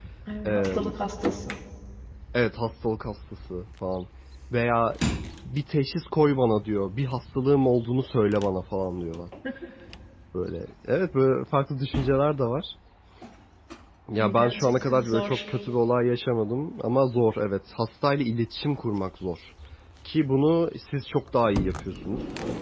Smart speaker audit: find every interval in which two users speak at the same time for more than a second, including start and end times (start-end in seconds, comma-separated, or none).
14.2-15.4